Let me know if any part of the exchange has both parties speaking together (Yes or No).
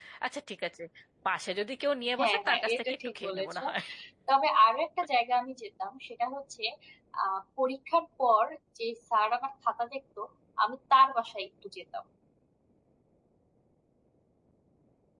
Yes